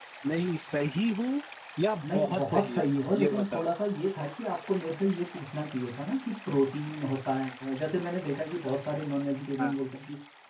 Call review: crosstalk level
present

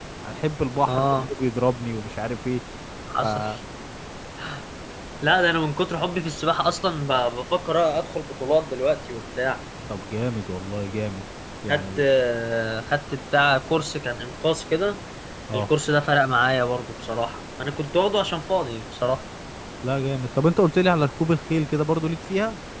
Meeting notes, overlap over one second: none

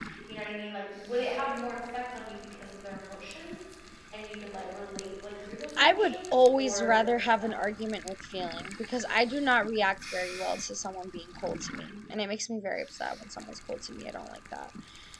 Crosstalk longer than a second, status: present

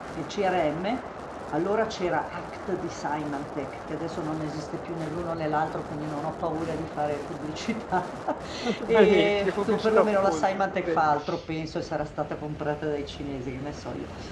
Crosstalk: present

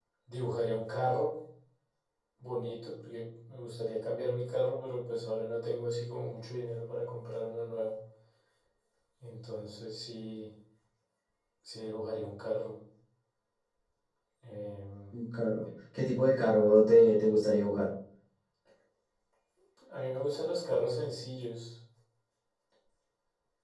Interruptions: none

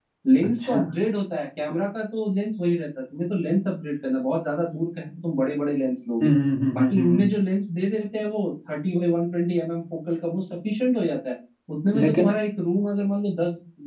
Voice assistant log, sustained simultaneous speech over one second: none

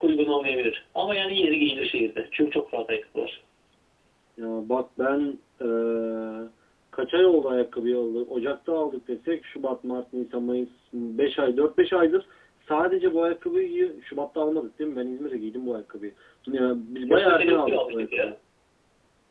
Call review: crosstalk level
present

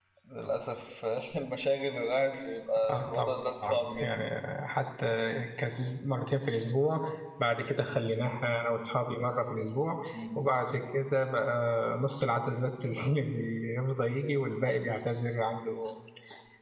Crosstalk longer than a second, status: present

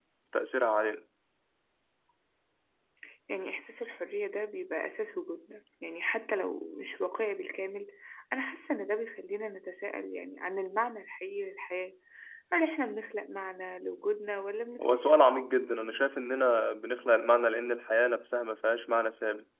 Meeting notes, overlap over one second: none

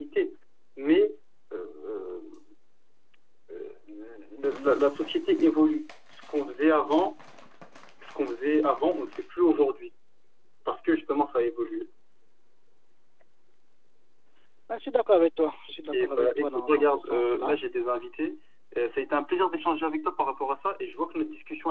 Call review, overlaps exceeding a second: present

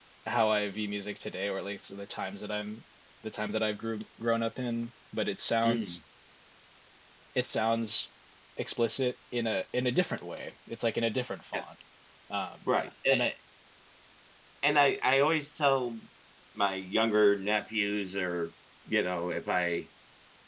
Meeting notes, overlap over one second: none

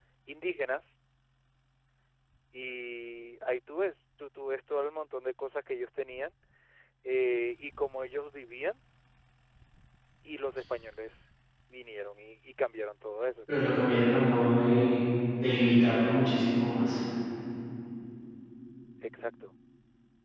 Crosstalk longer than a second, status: none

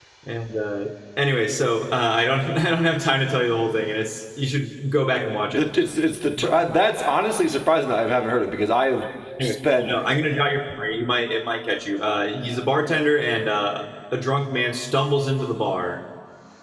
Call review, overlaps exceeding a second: none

